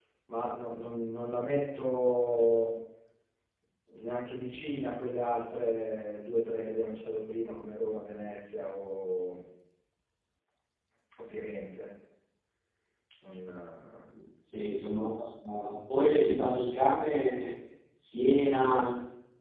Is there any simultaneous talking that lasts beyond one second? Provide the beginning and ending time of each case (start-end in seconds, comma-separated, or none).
none